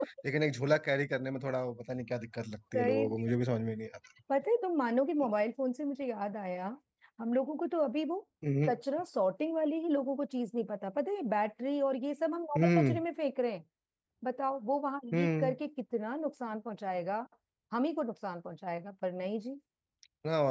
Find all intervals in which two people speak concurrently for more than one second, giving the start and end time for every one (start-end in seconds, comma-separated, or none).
none